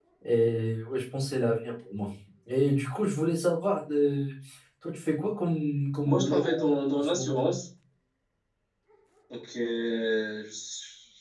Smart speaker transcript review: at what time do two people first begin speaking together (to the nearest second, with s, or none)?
6 s